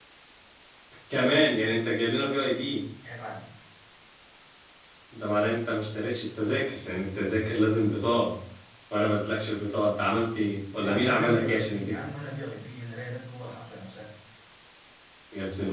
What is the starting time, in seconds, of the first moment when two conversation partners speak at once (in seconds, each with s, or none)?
10.7 s